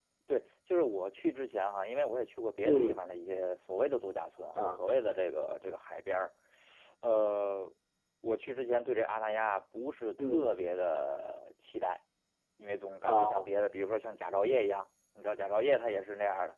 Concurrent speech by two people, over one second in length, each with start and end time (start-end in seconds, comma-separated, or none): none